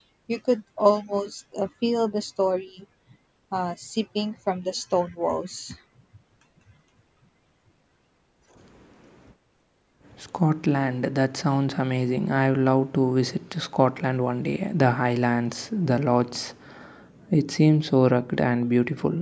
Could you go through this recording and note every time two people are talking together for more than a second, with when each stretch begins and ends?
none

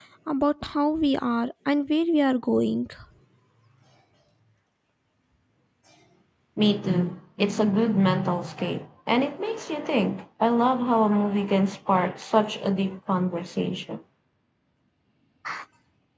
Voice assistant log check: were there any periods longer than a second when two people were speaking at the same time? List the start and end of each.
none

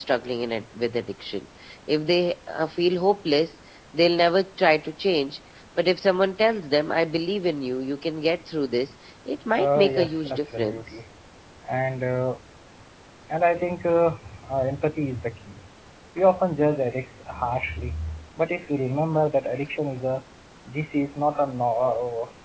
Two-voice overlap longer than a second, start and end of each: 9.6-11.0

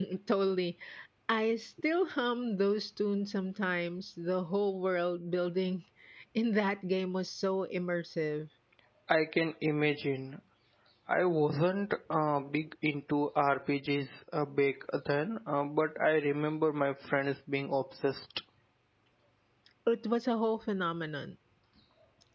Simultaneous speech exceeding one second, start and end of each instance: none

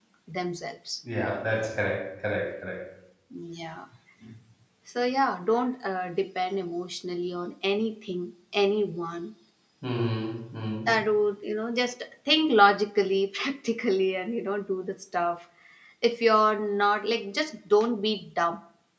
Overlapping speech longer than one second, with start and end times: none

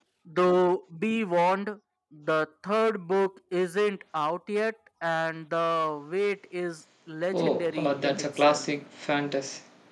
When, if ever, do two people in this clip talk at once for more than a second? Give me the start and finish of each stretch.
7.3-8.7

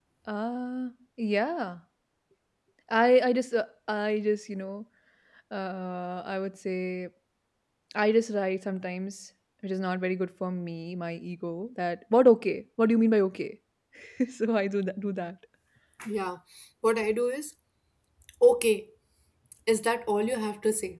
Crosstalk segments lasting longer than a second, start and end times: none

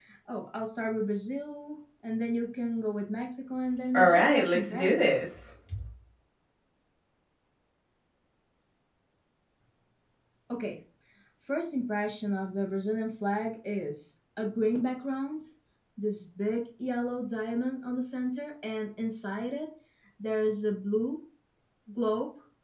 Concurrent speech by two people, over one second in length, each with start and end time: 3.9-5.2

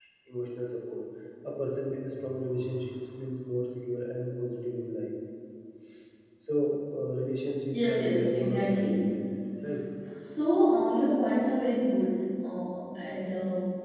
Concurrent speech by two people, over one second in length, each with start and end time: 7.7-9.1

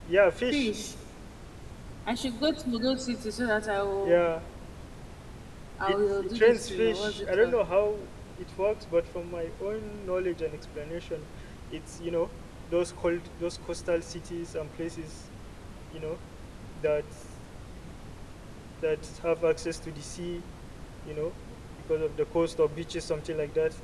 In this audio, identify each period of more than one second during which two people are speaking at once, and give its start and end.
5.9-7.6

